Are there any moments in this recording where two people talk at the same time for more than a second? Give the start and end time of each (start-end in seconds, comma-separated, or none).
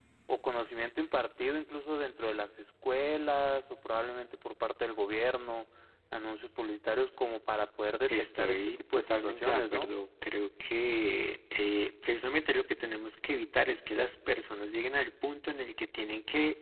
8.1-9.9